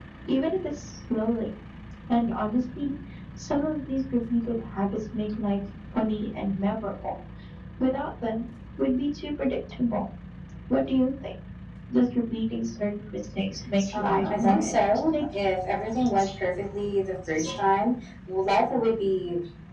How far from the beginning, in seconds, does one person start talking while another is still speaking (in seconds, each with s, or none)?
13.8 s